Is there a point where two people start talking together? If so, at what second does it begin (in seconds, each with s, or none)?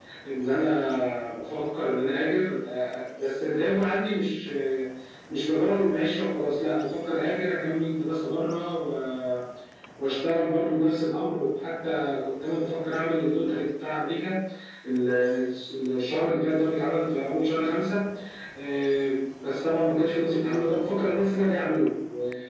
none